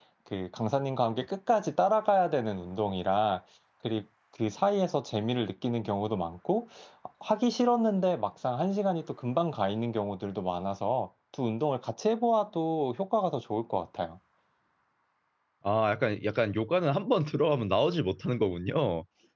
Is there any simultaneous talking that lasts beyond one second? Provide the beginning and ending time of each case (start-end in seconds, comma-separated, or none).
none